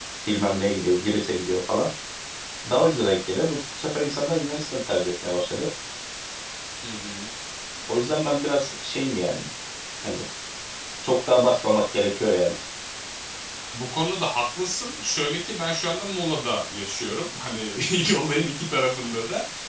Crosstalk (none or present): none